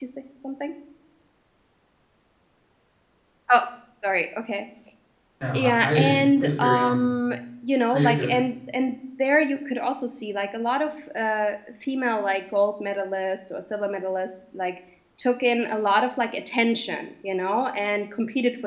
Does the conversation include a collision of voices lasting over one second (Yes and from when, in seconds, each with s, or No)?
Yes, from 5.5 s